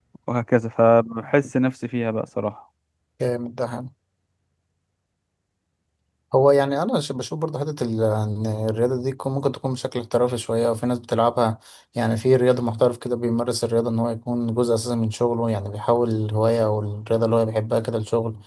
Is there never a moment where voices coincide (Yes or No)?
Yes